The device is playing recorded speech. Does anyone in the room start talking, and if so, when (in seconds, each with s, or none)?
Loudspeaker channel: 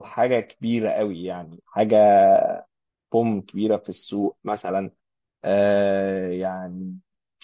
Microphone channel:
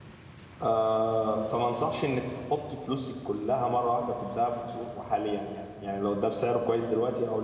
0.6 s